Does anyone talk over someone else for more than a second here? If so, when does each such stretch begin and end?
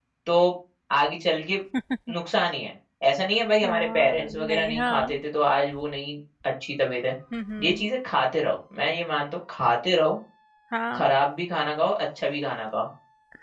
3.6-5.2

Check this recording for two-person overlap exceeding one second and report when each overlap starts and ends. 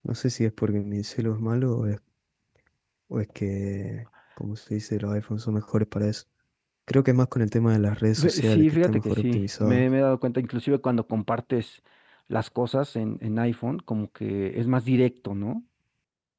8.2-9.8

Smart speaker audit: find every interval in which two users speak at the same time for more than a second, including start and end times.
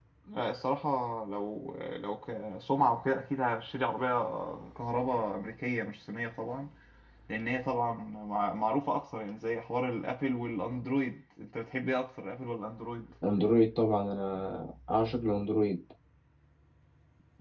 none

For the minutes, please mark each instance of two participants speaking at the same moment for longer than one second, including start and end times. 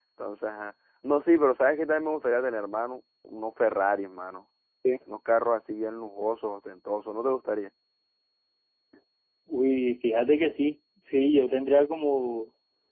none

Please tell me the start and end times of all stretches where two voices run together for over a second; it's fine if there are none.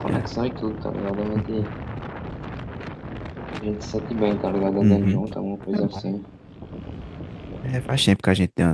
none

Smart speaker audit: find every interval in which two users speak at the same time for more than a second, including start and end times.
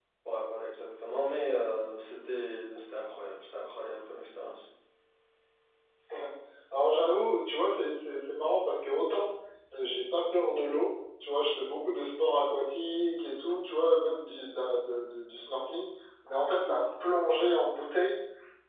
none

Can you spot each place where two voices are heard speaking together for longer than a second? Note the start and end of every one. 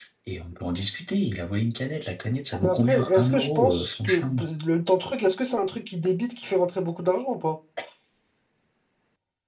2.6-4.2

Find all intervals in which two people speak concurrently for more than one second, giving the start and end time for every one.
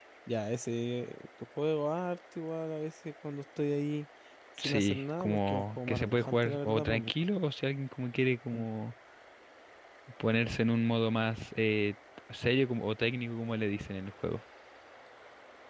4.6-7.1

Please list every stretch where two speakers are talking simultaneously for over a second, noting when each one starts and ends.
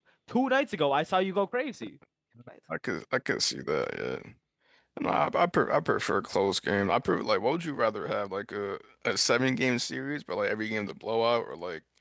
none

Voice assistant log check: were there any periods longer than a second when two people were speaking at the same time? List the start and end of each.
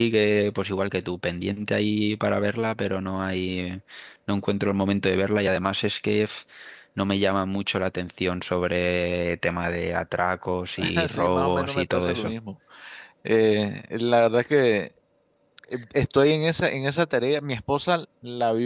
10.9-12.3

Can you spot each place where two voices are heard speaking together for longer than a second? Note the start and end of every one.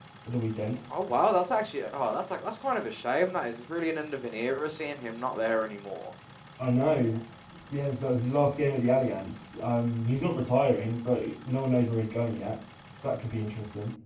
none

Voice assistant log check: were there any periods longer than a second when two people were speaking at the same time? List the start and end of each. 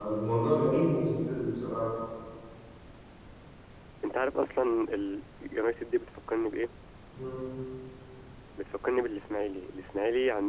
none

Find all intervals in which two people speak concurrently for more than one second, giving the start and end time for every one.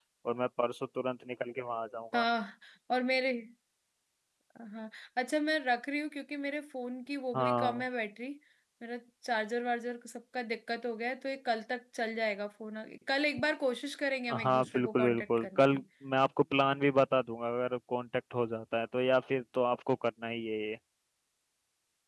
14.4-15.8

